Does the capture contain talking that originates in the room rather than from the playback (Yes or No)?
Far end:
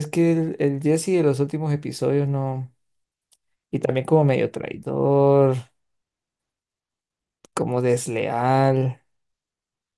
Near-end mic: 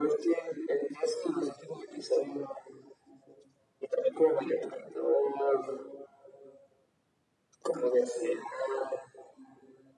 No